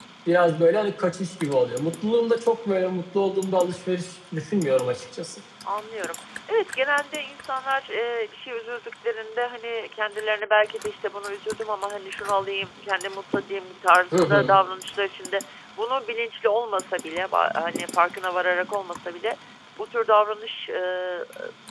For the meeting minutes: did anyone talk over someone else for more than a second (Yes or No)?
No